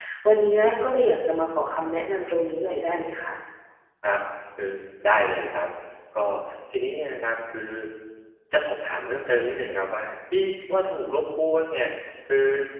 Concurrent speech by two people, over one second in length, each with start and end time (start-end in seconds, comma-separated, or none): none